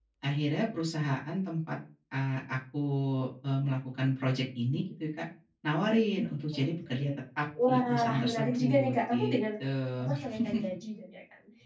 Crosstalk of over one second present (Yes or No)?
Yes